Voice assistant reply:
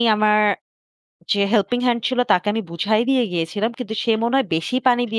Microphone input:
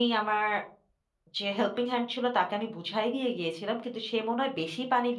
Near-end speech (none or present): none